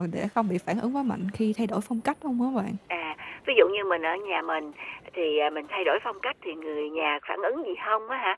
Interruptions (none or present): none